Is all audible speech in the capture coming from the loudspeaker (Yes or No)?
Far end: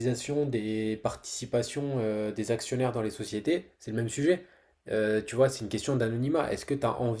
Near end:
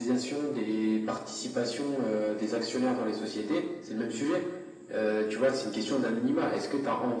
Yes